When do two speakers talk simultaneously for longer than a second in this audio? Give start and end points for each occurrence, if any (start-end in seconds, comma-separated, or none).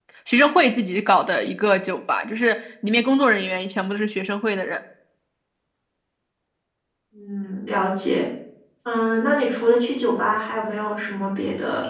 none